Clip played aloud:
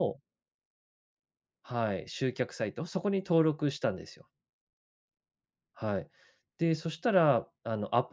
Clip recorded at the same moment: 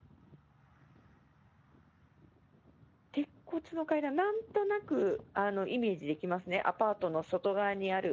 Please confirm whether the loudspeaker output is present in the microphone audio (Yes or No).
No